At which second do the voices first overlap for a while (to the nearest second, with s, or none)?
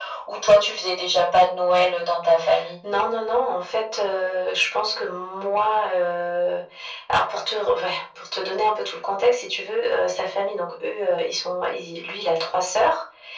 none